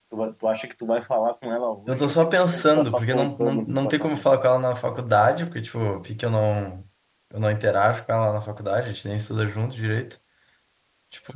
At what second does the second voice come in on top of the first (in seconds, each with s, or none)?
1.9 s